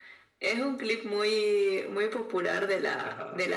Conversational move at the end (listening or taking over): listening